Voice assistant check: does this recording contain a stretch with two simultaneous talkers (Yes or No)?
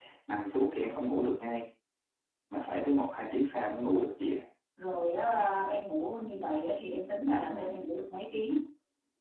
No